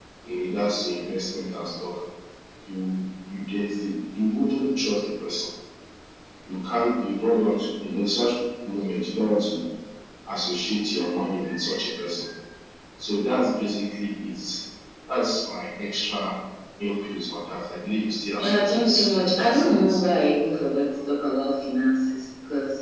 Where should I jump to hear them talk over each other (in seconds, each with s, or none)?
18.4 s